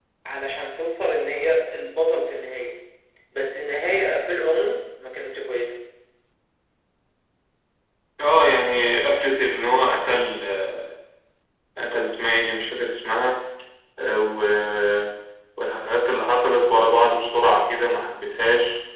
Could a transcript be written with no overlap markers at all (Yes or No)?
Yes